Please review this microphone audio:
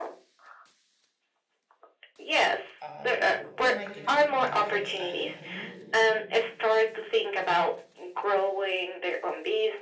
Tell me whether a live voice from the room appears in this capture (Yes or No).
Yes